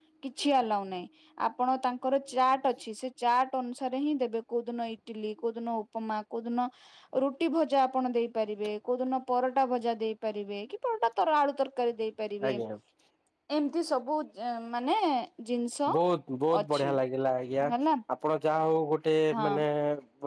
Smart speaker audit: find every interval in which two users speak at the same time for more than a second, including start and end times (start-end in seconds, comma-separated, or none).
none